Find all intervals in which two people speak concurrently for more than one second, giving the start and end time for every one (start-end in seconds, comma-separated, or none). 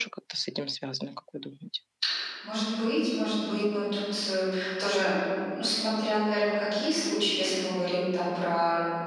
none